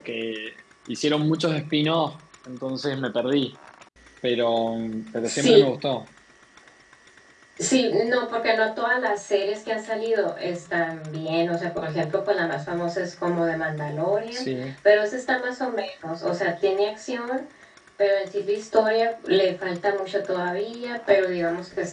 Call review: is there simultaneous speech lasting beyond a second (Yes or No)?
No